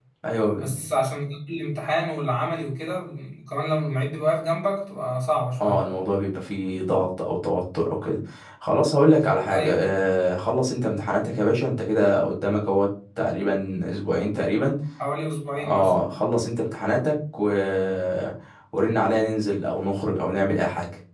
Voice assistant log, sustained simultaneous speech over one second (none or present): none